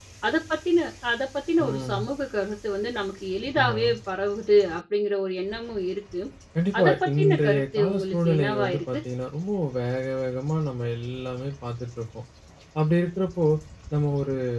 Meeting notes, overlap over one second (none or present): present